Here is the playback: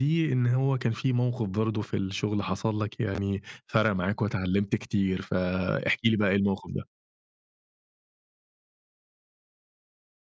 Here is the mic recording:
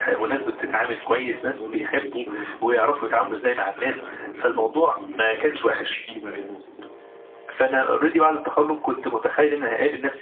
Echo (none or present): present